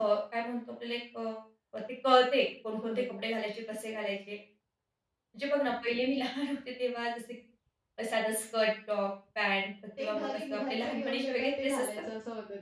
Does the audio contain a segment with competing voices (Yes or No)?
Yes